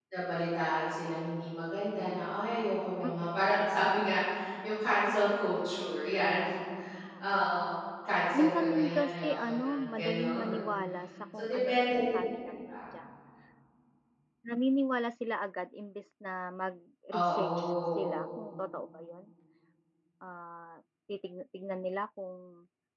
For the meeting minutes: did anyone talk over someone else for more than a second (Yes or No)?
Yes